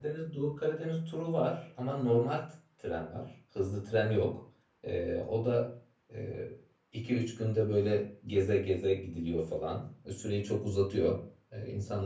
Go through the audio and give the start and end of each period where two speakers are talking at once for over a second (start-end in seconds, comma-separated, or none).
none